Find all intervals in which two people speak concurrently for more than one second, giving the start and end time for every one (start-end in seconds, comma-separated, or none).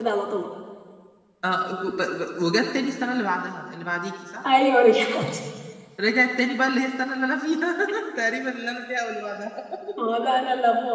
none